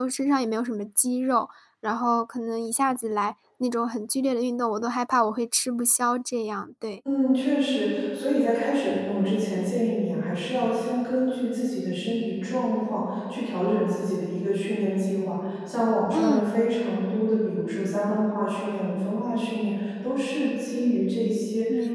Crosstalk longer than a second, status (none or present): none